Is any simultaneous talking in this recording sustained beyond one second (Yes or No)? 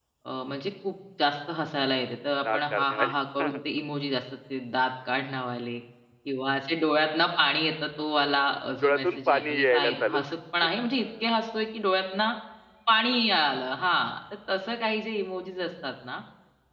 Yes